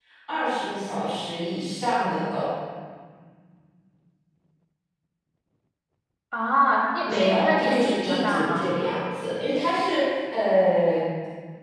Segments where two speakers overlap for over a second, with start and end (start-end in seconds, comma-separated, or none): 7.0-8.7